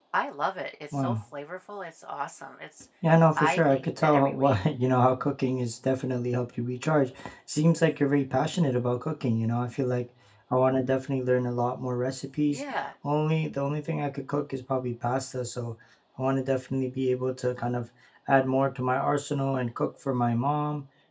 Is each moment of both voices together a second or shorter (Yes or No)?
No